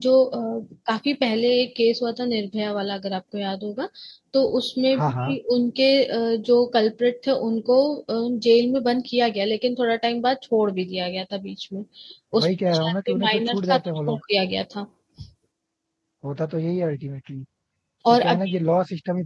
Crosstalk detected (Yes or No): Yes